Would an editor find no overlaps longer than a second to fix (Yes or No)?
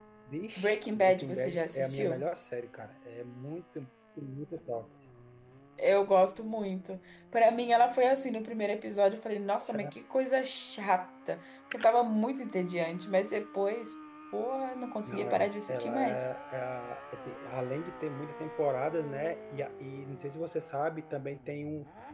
No